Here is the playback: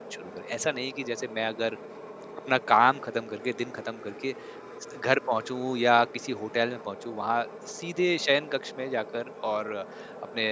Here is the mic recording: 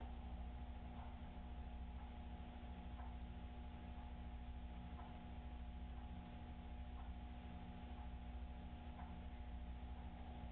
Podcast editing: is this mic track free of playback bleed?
Yes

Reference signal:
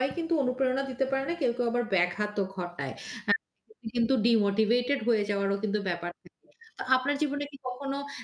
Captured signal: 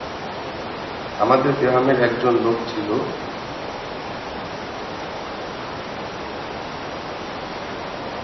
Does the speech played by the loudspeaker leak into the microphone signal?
No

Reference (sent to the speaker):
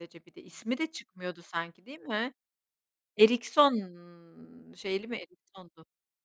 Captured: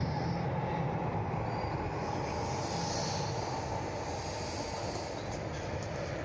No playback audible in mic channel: Yes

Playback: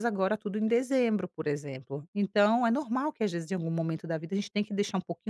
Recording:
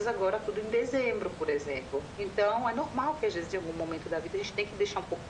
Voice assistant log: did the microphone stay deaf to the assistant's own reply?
No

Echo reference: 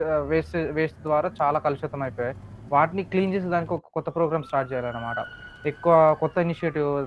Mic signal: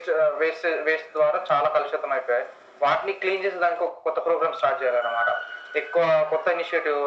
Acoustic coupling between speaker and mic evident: Yes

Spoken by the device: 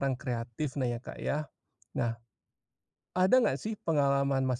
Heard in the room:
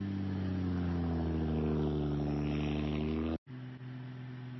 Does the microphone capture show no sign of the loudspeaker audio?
Yes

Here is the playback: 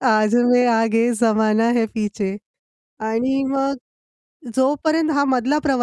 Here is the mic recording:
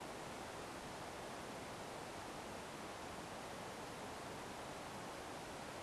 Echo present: No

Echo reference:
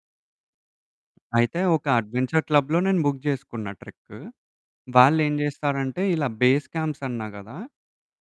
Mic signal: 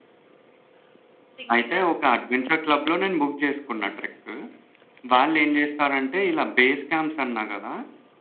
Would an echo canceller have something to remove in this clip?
Yes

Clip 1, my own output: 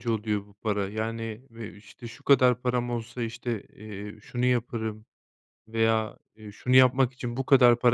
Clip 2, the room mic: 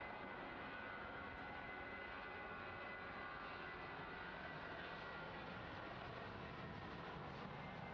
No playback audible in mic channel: Yes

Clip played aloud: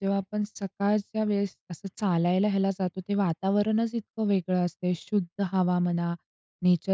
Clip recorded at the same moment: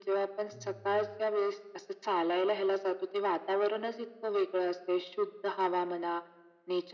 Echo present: Yes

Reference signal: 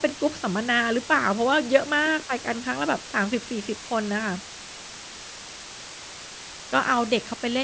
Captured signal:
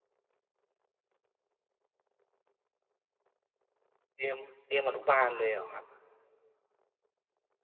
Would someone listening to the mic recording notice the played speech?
No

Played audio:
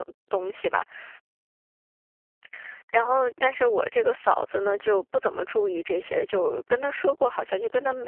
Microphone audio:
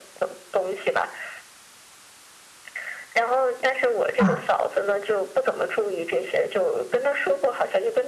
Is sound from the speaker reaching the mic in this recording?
Yes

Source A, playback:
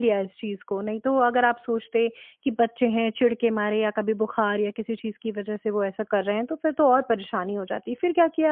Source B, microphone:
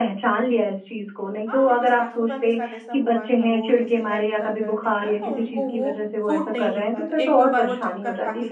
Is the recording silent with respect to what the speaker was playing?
No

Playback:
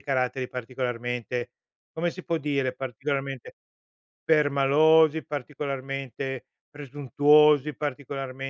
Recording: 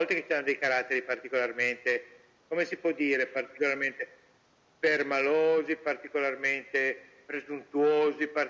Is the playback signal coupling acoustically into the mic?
Yes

